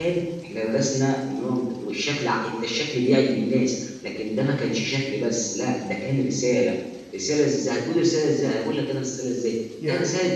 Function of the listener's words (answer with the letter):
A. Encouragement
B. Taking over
A